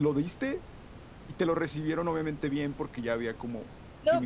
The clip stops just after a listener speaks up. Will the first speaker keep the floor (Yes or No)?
No